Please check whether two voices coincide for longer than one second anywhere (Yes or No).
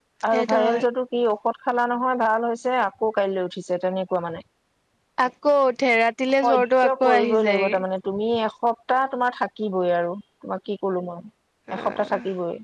Yes